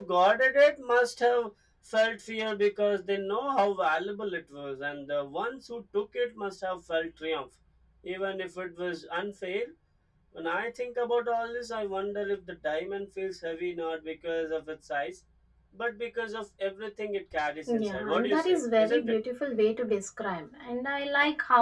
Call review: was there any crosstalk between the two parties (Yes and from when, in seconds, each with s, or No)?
Yes, from 17.7 s